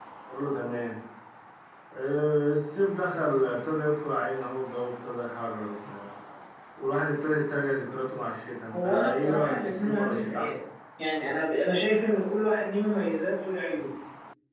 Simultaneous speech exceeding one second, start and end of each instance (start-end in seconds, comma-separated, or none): 8.7-10.5